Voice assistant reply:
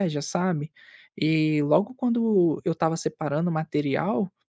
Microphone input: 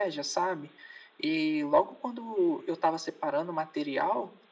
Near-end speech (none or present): none